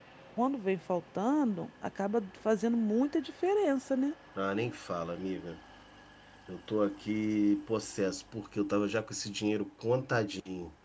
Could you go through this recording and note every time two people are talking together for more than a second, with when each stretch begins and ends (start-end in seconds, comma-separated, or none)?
none